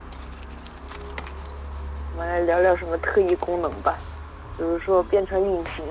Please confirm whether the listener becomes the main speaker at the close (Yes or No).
No